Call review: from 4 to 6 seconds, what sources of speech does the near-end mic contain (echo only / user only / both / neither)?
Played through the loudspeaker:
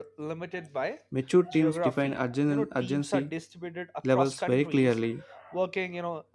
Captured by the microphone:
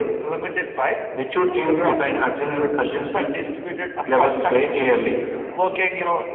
echo only